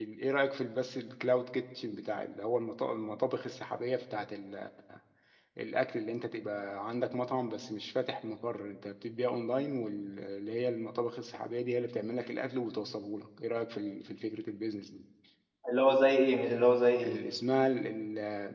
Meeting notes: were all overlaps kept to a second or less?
Yes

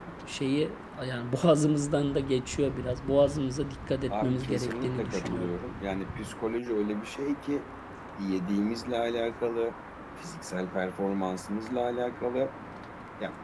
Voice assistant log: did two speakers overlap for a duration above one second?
Yes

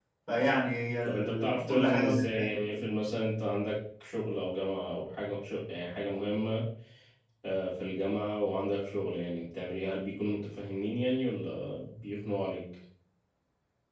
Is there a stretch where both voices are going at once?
Yes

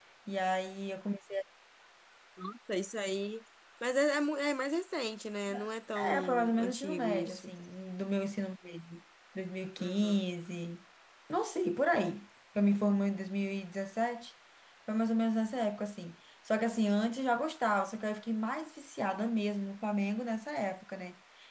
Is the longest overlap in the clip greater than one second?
Yes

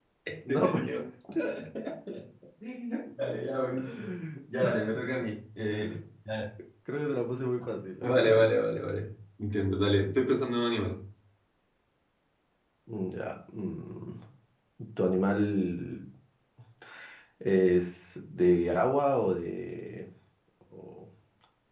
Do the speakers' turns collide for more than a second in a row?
No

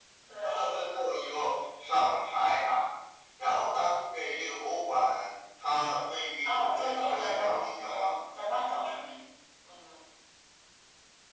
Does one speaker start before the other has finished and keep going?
Yes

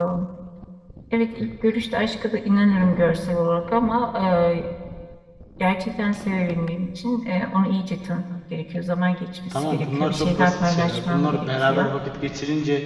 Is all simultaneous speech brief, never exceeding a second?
No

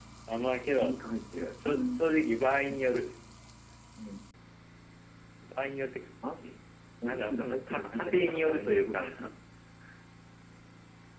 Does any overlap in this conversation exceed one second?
Yes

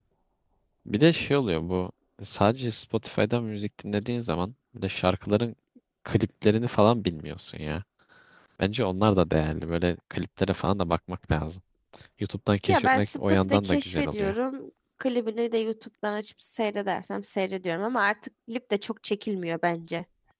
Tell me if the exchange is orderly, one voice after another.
No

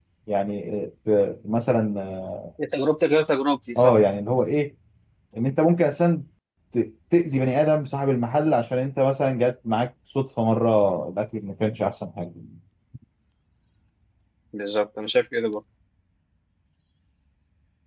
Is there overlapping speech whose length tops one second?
No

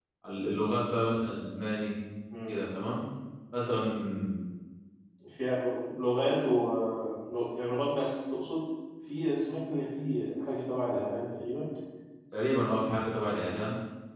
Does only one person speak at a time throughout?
Yes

